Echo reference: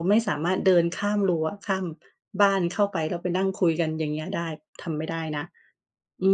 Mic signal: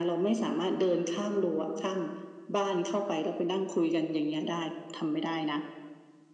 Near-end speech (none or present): none